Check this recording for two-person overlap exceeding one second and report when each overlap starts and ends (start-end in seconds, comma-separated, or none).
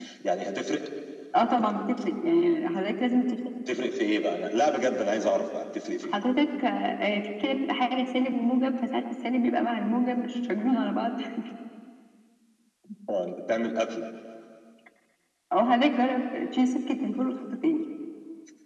none